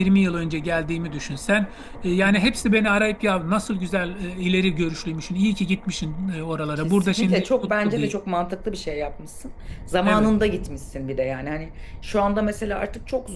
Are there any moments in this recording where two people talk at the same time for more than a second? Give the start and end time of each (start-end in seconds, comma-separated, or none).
6.8-8.1